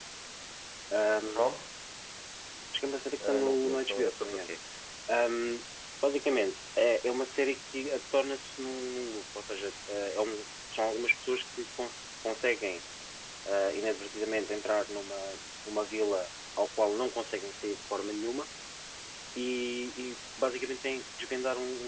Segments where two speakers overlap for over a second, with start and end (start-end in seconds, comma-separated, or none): 3.3-4.5